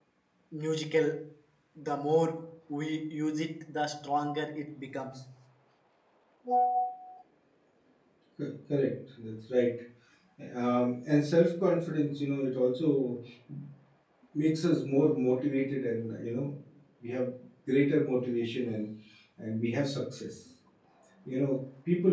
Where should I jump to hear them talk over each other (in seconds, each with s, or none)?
none